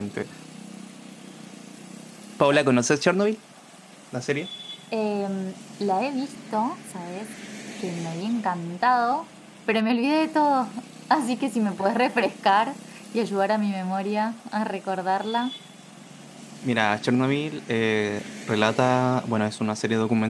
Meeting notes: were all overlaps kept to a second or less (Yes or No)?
Yes